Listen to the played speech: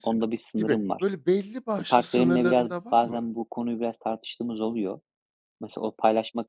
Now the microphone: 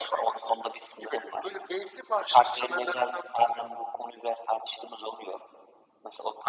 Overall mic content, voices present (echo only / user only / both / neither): echo only